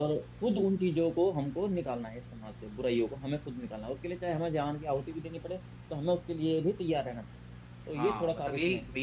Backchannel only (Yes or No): No